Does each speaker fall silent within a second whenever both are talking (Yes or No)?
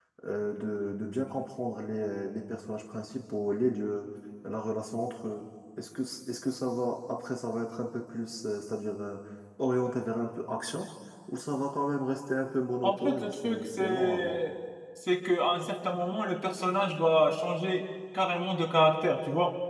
No